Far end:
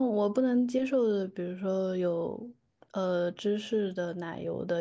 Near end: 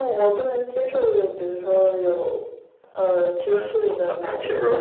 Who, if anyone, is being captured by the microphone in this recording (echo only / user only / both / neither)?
both